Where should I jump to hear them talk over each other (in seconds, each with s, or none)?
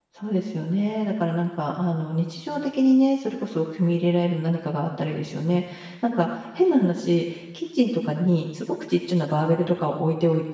none